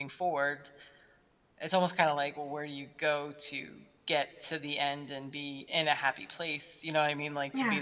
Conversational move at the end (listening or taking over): listening